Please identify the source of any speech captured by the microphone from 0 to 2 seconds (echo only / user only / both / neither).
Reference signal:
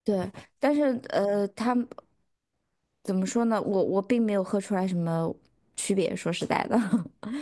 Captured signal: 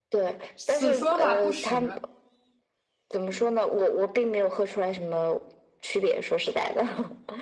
both